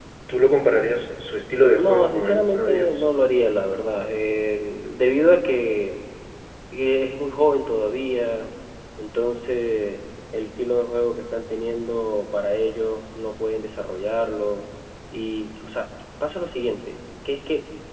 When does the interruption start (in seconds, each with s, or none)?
1.8 s